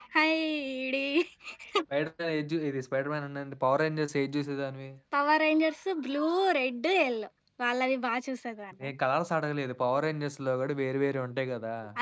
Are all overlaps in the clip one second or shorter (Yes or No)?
Yes